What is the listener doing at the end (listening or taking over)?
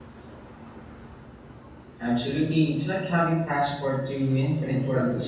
taking over